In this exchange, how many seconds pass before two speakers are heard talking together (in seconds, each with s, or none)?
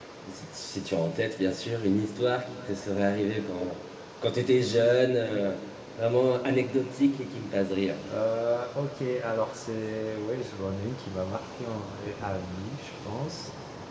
none